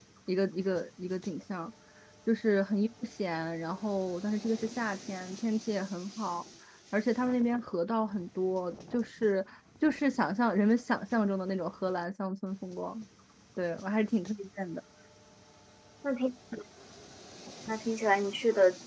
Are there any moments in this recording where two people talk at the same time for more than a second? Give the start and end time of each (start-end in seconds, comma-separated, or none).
none